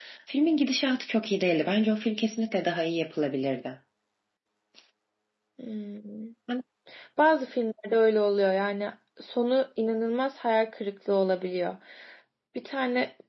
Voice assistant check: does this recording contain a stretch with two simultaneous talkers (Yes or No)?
No